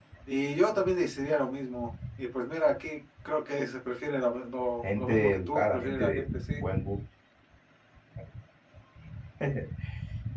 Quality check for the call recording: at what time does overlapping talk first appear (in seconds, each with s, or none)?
4.8 s